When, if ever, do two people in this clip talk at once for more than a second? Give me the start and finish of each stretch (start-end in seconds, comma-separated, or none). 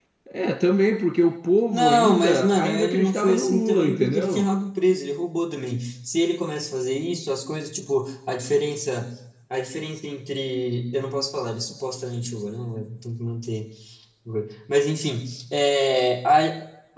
1.7-4.5